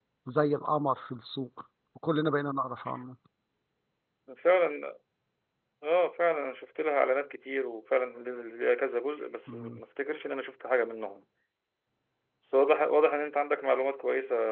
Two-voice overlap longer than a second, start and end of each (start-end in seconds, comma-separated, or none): none